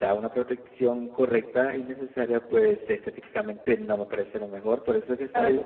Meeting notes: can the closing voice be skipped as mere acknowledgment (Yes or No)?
Yes